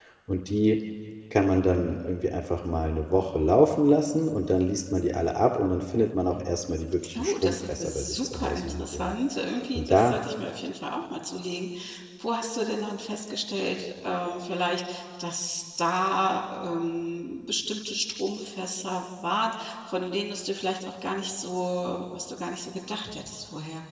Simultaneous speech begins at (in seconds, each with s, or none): 7.2 s